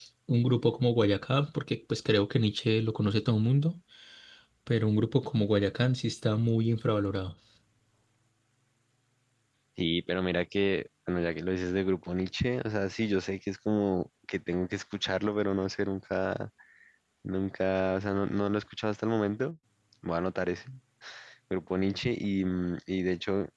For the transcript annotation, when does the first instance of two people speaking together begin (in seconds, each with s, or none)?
none